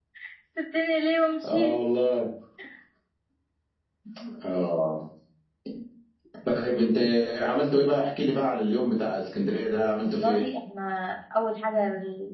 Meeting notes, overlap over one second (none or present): none